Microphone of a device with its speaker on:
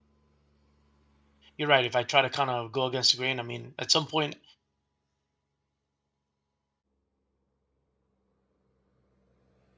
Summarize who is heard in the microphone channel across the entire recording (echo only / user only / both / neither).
user only